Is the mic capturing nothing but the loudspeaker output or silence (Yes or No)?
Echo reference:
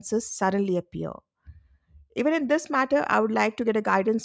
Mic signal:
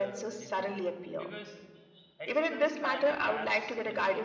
No